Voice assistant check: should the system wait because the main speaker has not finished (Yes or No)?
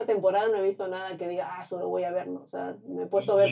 No